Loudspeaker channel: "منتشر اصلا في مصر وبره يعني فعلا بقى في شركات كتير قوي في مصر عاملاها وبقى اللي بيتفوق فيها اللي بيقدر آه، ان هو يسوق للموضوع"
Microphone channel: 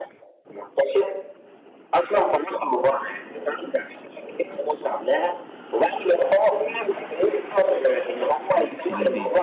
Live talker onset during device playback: 9 s

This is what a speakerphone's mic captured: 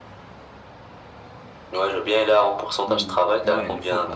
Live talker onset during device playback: 3 s

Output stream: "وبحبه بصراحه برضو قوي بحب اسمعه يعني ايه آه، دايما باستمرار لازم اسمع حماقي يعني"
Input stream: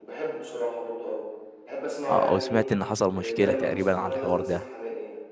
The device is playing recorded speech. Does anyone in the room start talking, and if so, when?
2 s

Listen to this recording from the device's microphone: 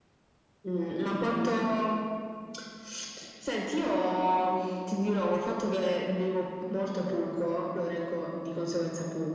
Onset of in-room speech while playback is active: none

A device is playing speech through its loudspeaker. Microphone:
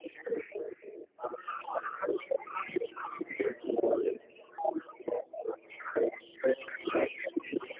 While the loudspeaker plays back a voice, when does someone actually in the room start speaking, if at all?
none

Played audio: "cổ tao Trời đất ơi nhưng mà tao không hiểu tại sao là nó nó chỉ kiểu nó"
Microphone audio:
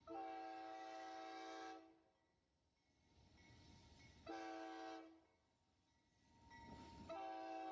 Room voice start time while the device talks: none

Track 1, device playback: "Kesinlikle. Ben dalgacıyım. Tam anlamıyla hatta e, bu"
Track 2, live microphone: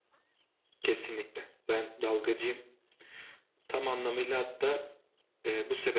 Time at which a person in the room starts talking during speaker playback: none

